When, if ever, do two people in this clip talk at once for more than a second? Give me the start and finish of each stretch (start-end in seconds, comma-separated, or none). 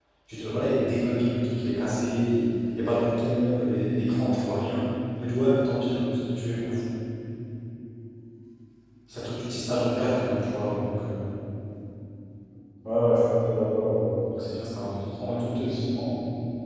none